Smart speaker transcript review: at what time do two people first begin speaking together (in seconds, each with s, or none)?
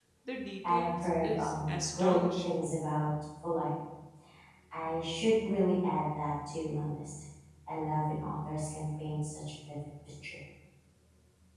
0.7 s